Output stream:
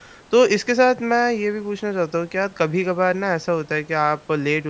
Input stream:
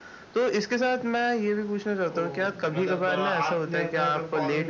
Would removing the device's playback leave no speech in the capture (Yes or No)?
No